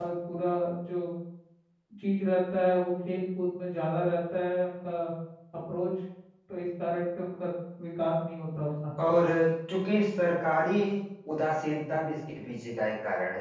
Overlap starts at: none

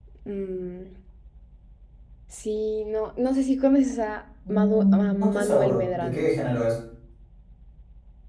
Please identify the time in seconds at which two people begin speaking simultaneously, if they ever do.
4.5 s

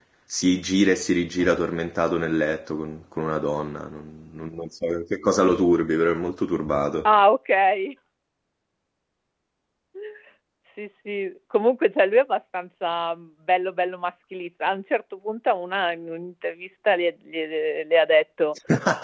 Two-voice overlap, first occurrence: none

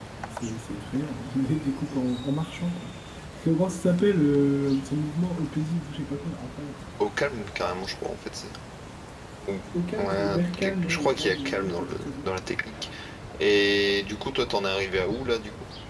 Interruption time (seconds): 10.0 s

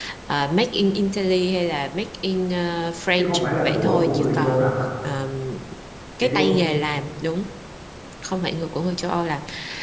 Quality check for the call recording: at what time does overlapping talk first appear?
3.2 s

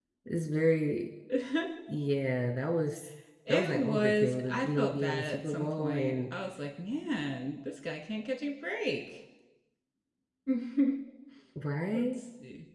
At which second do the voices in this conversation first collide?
3.5 s

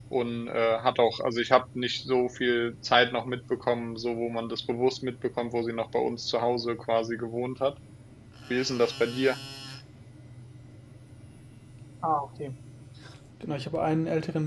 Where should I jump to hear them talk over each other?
none

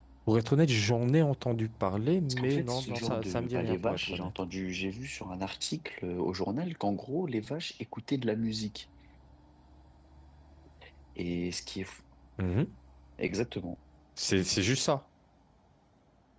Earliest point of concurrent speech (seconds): 2.3 s

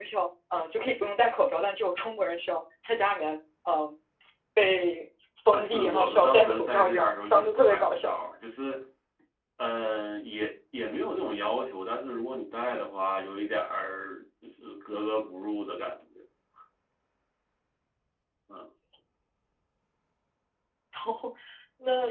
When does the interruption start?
5.5 s

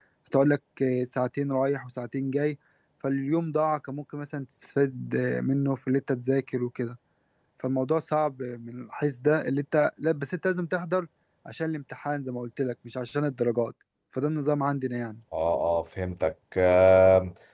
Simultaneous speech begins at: none

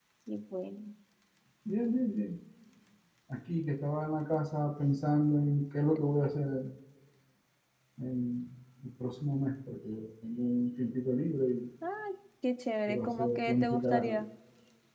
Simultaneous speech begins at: 12.9 s

